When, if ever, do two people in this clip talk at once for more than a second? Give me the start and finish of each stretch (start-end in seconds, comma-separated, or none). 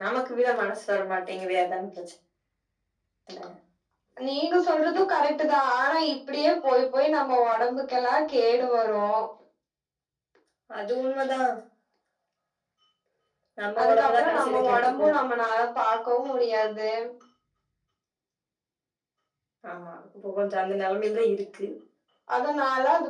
13.8-15.1